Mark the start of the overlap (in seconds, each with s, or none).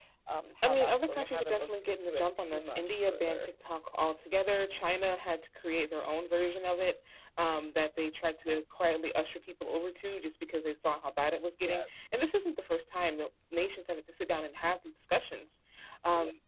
0.6 s